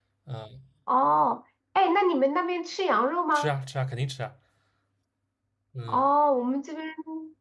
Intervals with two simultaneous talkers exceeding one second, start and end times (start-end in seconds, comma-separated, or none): none